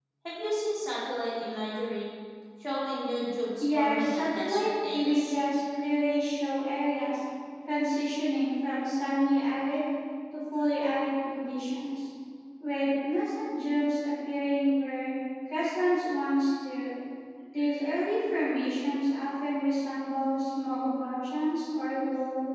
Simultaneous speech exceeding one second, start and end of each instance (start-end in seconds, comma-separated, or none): 3.6-5.3